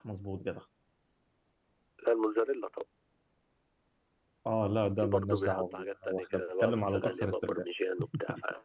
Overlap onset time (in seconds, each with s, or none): 5.0 s